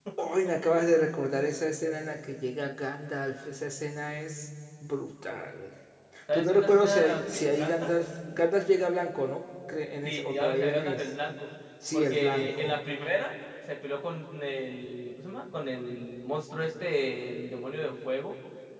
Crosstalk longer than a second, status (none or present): present